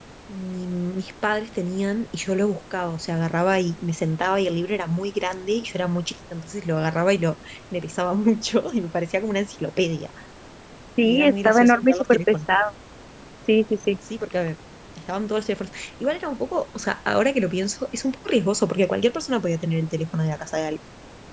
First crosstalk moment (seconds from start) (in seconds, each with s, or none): 11.0 s